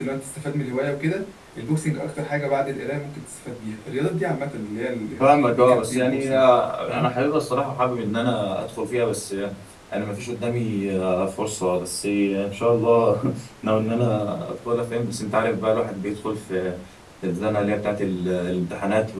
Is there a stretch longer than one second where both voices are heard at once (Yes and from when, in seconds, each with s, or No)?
Yes, from 5.2 s